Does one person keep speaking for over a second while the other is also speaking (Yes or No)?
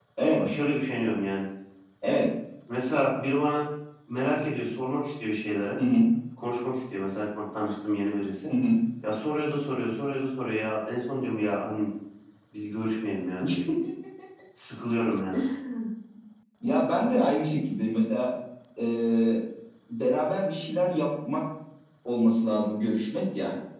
No